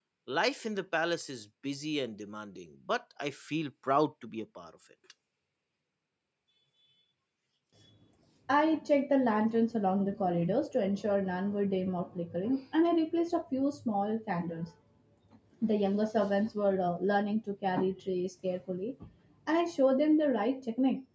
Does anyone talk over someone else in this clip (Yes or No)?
No